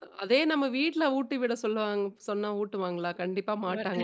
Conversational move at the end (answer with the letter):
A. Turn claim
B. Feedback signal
B